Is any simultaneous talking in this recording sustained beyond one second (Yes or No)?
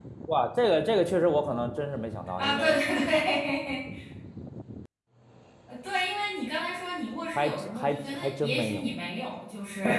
Yes